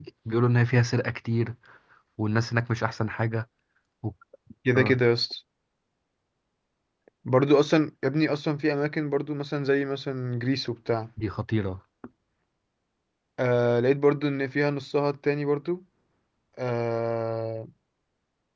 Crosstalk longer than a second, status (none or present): none